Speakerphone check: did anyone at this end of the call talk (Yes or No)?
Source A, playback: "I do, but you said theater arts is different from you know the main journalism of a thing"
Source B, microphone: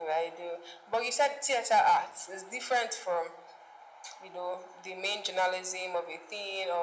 No